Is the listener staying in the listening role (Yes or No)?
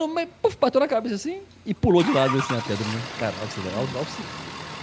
Yes